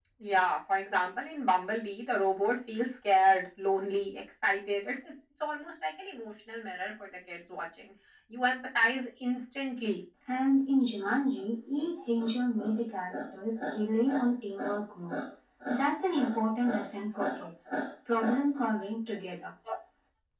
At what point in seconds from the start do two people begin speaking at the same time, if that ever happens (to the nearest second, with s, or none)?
none